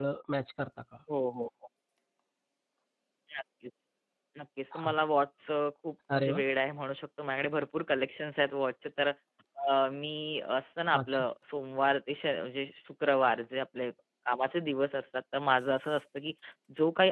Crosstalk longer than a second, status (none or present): none